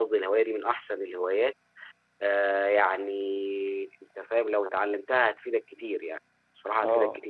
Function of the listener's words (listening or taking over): taking over